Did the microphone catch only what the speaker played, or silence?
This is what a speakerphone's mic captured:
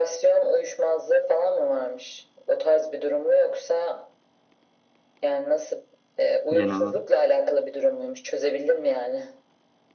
No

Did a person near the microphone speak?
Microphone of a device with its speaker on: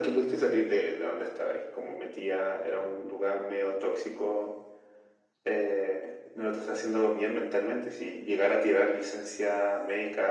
No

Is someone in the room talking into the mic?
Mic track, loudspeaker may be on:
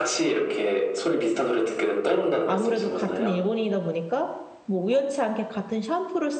Yes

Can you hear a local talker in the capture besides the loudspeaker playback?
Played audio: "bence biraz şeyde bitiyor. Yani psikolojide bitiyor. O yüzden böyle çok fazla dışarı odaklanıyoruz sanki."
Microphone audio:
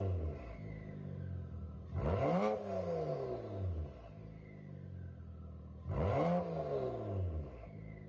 No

